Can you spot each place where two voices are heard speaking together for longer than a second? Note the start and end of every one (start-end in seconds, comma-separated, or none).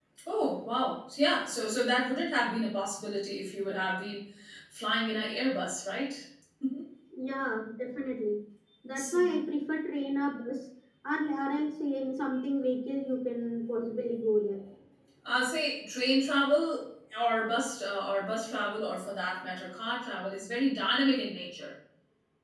none